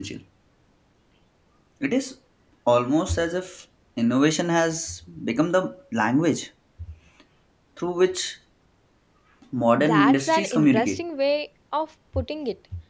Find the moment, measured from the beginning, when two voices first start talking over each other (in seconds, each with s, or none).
9.8 s